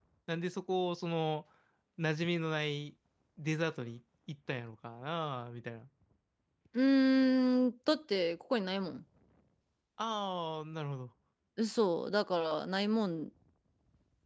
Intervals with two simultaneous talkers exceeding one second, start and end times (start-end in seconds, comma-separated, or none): none